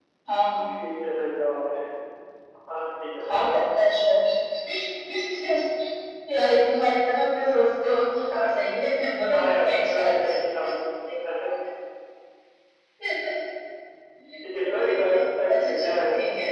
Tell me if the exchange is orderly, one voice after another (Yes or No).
No